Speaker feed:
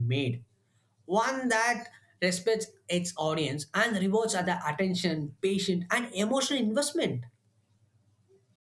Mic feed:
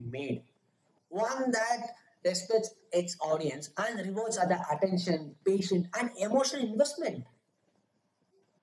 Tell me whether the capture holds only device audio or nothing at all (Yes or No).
Yes